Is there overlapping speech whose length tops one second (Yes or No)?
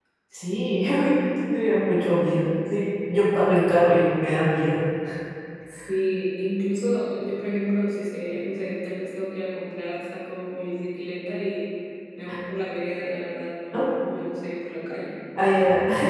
No